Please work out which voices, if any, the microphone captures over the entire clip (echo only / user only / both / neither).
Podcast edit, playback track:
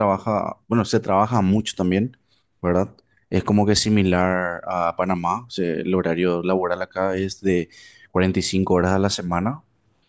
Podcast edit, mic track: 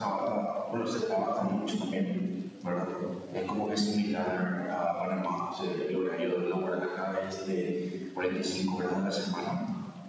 echo only